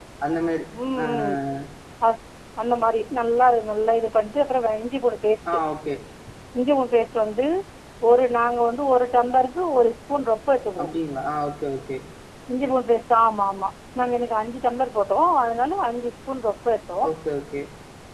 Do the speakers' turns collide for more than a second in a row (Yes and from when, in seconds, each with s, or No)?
No